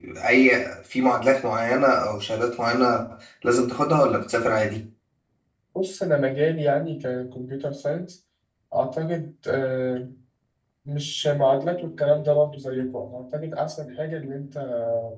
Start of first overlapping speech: none

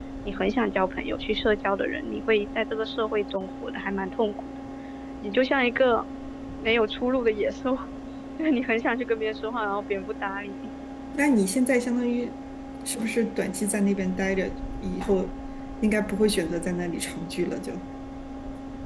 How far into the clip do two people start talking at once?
none

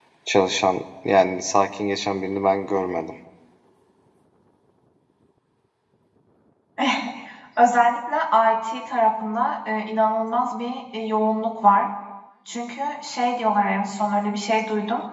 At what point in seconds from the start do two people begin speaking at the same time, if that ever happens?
none

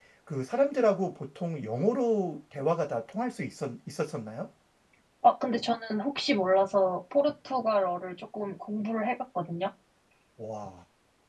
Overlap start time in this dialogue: none

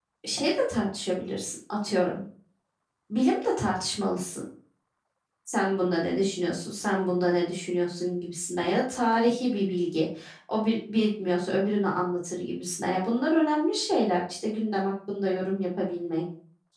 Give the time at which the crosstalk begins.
none

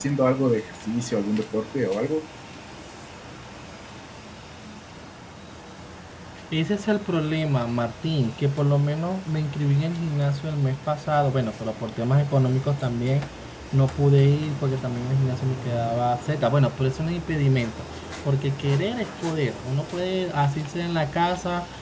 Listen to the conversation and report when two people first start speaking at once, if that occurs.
none

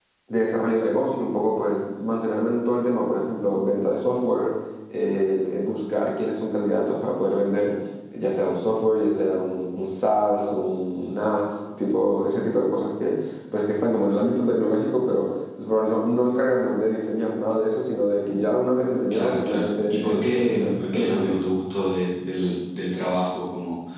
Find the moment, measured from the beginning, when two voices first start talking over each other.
19.1 s

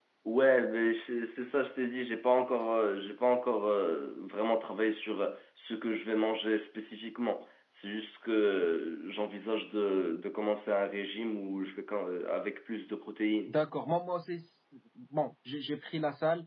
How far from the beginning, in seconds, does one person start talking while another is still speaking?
none

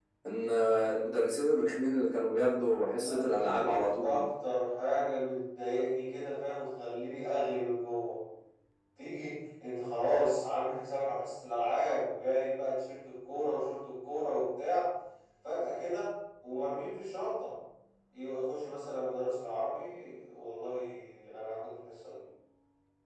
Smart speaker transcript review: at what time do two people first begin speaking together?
3.0 s

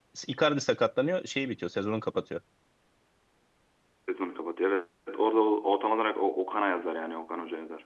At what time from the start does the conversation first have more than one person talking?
none

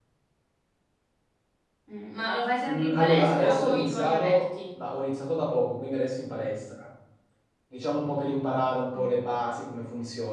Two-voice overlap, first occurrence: 2.7 s

